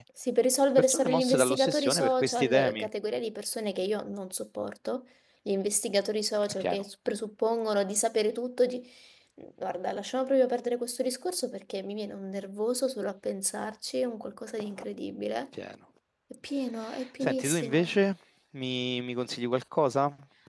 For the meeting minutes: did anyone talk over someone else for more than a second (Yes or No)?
Yes